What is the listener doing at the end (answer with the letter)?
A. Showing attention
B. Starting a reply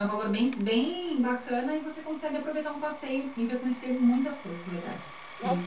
B